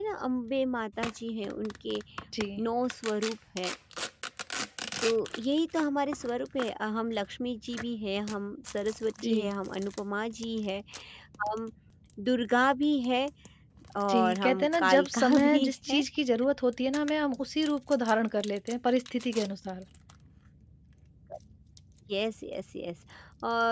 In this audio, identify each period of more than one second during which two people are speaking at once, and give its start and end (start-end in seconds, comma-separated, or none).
14.1-16.0